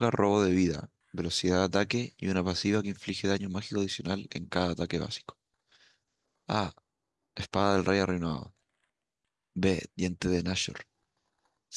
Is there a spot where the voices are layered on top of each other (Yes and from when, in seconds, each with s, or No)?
No